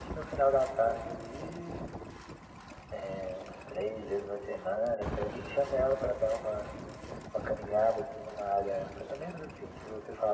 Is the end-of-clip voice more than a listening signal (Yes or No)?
No